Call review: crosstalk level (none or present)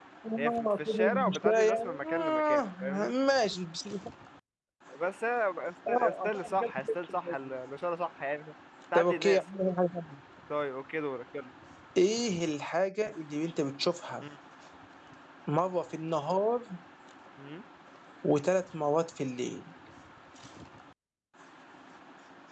present